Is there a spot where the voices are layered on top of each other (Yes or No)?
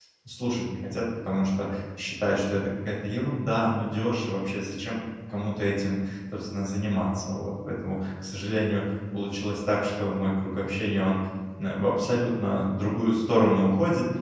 No